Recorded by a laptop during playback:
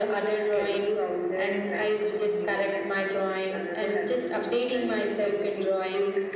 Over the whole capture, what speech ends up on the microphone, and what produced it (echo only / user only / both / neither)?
echo only